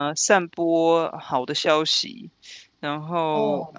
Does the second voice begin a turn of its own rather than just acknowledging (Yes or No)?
No